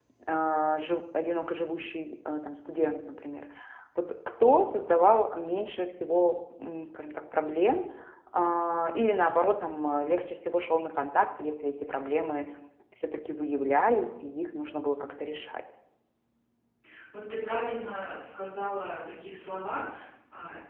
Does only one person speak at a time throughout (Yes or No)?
Yes